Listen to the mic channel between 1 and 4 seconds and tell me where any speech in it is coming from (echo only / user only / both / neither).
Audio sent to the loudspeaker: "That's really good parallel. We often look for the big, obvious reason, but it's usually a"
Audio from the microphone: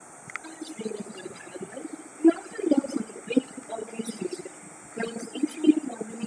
echo only